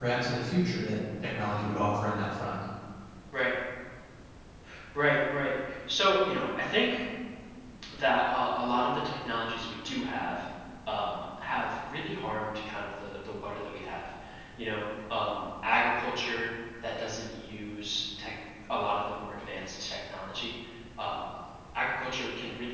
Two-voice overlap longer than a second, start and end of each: none

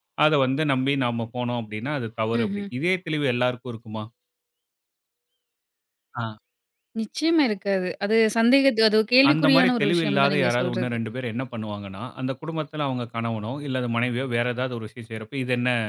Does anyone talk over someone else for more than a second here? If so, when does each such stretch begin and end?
9.3-10.9

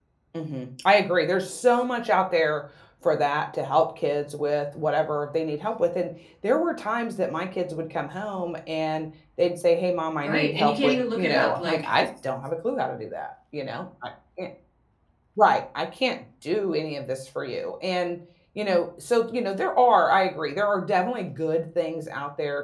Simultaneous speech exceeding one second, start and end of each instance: 10.2-11.9

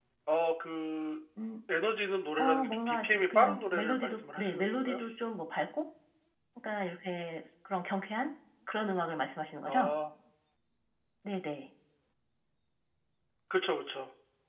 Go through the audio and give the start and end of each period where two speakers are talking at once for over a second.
2.4-5.0

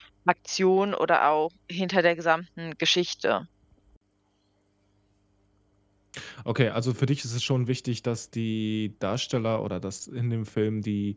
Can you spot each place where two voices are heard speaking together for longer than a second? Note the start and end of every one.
none

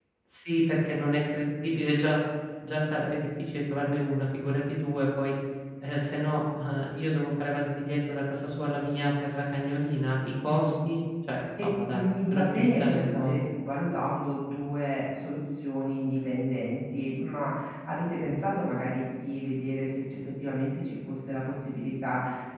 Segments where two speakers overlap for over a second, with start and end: 11.6-13.4

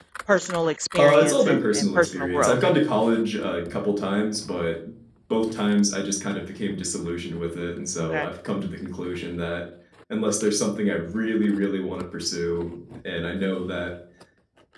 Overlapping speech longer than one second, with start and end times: 1.0-2.6

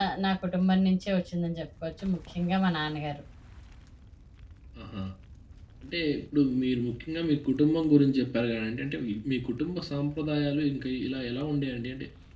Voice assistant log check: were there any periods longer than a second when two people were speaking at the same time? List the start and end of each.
none

